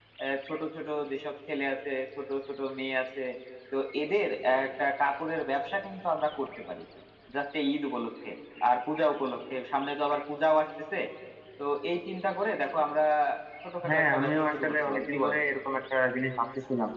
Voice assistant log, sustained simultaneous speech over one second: present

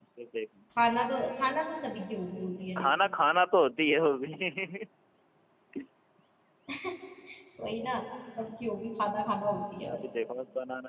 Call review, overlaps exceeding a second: none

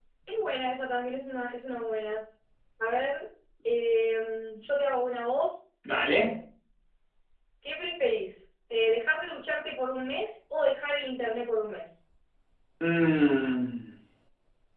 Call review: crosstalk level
none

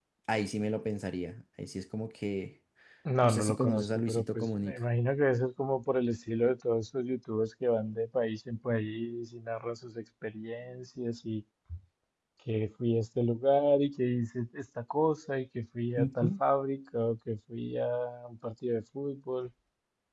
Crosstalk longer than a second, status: present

